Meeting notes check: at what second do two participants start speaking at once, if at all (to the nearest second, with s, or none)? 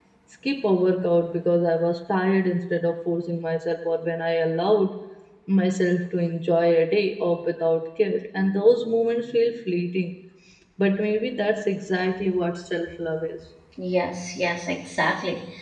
none